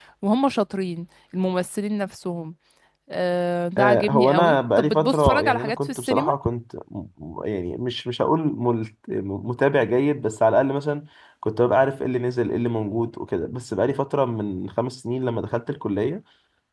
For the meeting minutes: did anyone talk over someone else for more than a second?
Yes, from 3.8 s

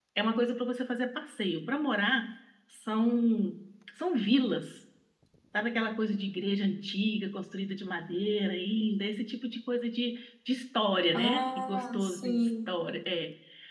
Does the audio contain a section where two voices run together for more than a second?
Yes, from 11.1 s

